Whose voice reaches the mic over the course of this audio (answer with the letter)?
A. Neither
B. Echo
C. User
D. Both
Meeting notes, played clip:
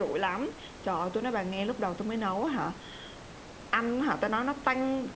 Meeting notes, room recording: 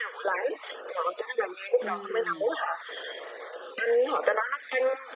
D